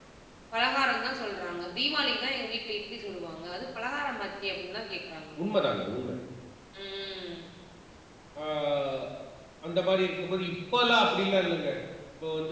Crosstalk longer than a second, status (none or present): none